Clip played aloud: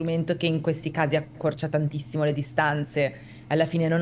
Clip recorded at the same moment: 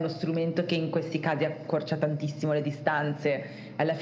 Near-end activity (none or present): none